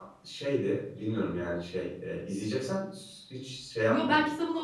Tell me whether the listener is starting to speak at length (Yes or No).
Yes